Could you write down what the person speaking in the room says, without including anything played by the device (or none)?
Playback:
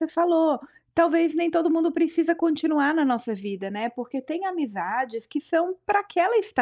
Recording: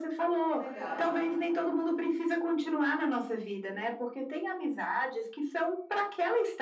Que legal.